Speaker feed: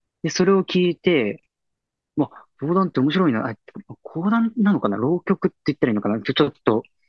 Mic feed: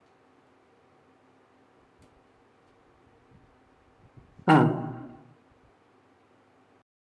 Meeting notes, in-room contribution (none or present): present